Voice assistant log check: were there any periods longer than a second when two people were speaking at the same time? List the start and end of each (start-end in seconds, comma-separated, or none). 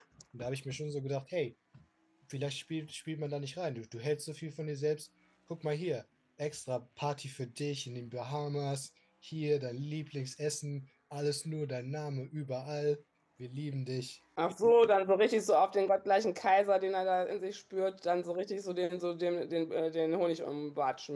none